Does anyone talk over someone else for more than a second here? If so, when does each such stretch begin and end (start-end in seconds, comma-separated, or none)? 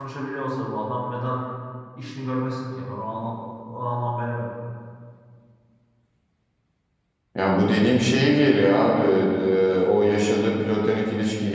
none